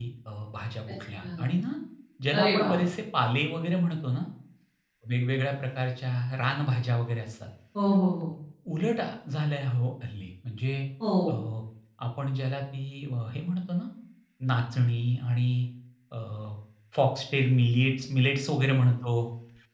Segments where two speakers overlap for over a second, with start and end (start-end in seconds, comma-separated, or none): none